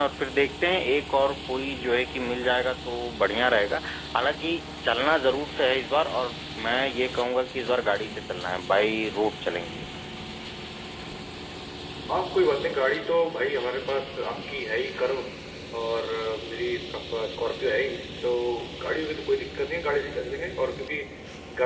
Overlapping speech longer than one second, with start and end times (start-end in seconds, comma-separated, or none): none